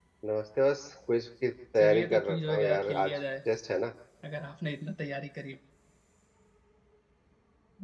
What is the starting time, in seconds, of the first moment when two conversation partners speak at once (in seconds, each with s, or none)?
1.8 s